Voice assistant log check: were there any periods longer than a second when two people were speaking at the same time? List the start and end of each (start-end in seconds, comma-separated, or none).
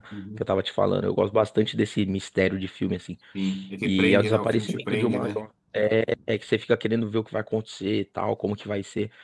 3.8-5.3